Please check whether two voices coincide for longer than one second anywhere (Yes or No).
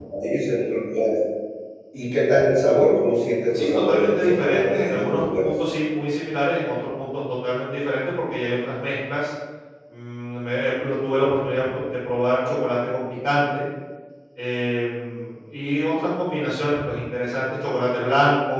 Yes